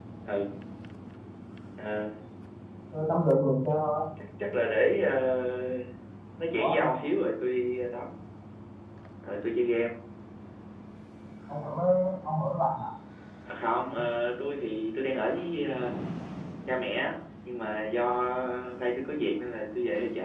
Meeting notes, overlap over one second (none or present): none